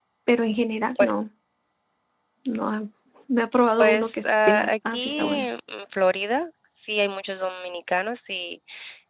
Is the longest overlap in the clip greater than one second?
Yes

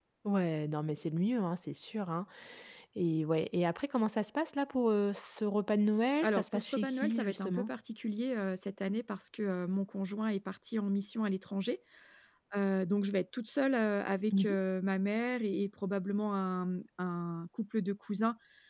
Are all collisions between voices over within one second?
No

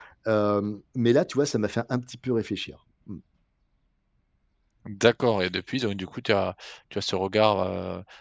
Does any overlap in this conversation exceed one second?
No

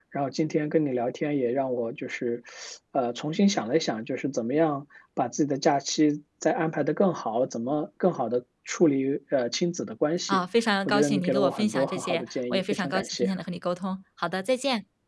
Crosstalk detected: Yes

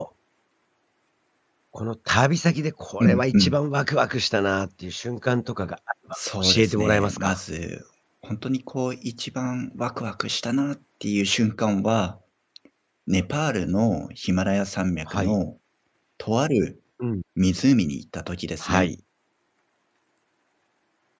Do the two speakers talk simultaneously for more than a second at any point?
Yes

